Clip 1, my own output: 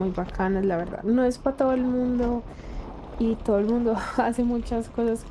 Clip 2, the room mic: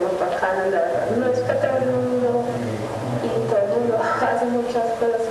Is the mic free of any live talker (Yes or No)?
No